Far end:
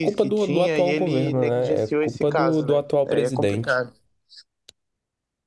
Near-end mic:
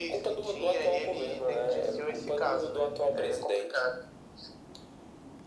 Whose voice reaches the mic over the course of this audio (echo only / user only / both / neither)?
echo only